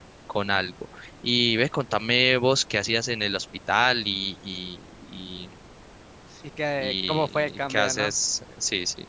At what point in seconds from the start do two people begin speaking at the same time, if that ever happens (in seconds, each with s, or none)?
6.8 s